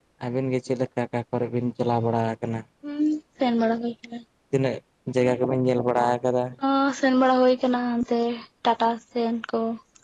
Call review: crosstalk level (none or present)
none